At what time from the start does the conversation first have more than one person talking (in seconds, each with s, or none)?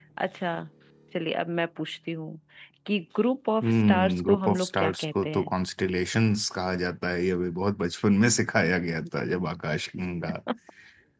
3.6 s